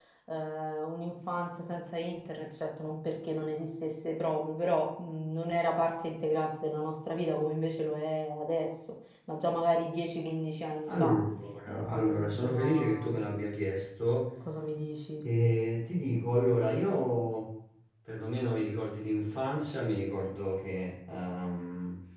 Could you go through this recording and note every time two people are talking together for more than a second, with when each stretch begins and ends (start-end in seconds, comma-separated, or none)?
11.7-13.1